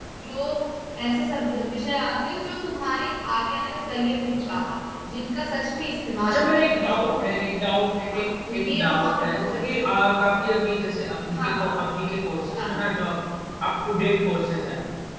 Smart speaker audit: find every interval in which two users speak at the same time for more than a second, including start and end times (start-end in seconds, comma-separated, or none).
6.3-7.5, 8.1-9.4